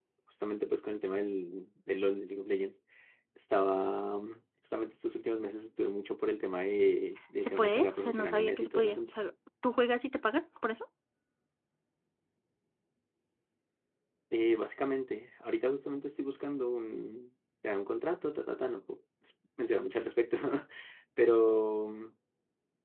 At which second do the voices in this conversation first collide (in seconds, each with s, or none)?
7.4 s